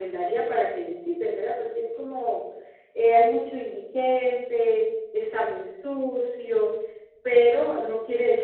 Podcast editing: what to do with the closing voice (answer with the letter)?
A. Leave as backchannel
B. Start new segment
A